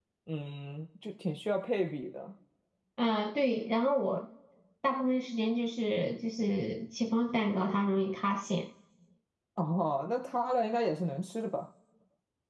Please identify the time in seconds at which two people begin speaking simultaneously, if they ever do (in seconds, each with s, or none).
none